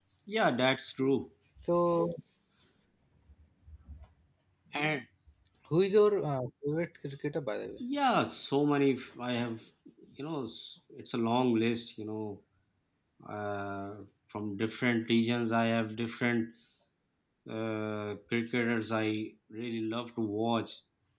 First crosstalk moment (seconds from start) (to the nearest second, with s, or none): none